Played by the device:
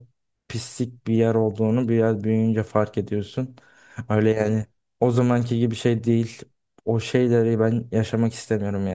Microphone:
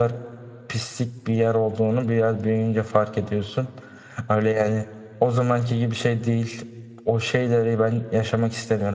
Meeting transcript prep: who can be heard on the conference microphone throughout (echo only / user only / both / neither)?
echo only